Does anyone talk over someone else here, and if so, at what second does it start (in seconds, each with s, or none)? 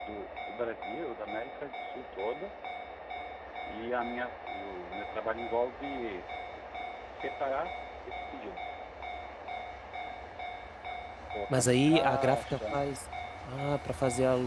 11.5 s